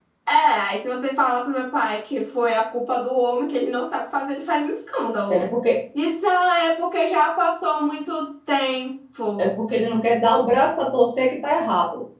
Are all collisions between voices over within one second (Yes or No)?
Yes